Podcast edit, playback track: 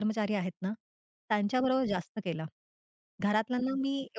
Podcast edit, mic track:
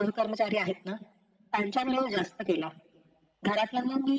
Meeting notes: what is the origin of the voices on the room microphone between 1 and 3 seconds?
echo only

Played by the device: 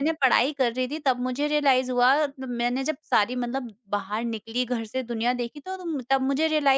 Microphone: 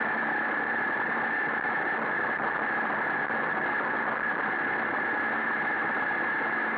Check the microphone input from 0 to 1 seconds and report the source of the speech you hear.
neither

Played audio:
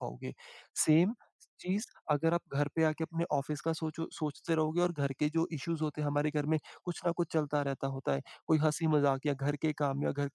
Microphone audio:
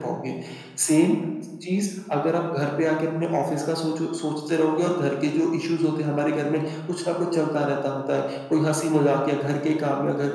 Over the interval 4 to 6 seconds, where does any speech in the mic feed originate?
echo only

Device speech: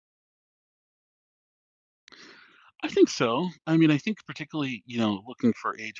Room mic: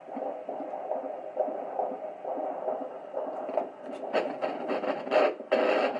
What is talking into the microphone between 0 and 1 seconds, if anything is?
neither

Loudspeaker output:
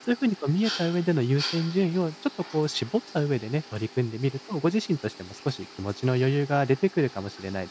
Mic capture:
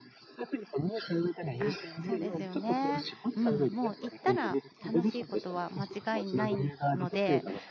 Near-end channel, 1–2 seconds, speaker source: both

